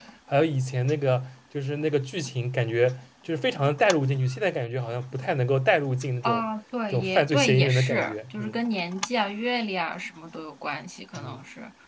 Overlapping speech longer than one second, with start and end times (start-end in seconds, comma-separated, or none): 6.9-8.6